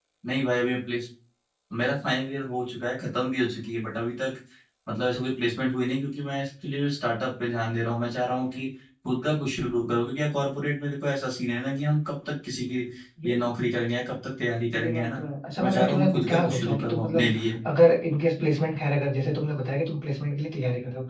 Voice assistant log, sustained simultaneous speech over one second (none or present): present